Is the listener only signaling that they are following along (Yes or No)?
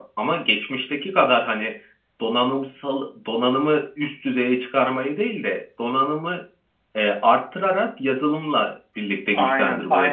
No